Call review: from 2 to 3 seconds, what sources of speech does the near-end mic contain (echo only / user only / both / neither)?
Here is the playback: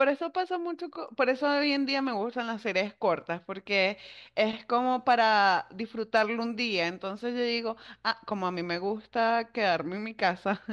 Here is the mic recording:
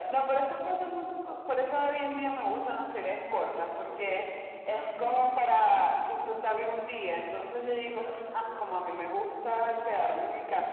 echo only